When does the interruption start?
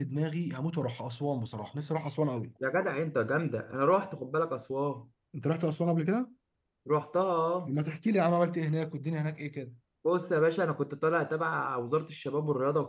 none

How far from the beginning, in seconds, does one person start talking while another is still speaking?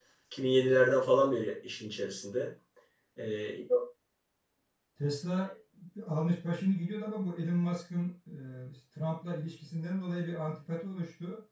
none

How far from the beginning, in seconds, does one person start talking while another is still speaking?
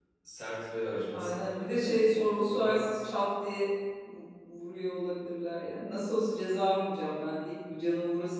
1.1 s

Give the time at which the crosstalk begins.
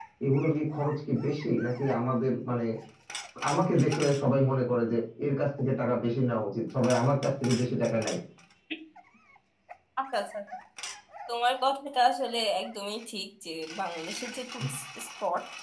none

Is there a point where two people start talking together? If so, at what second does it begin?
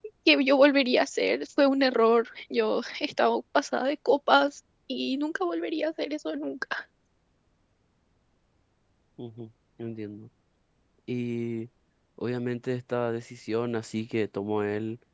none

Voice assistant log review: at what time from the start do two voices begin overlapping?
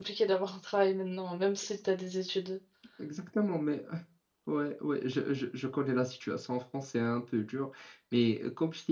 none

